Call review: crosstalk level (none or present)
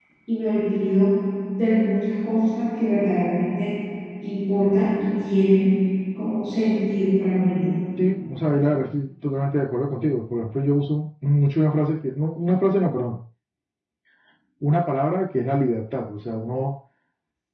none